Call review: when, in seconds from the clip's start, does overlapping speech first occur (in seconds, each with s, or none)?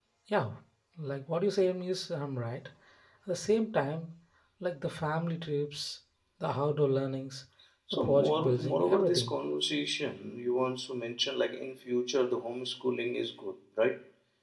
7.9 s